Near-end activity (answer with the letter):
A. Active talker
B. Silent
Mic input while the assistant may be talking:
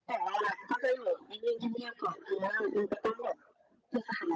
B